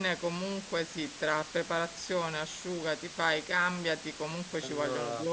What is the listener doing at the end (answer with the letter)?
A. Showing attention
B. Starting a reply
A